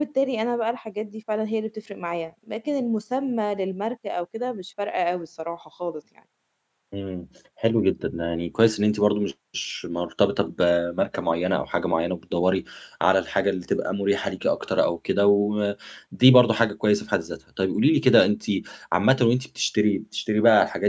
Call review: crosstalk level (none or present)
none